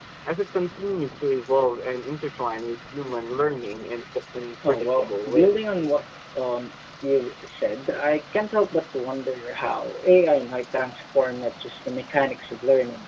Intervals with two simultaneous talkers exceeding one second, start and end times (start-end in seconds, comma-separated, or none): 4.7-6.0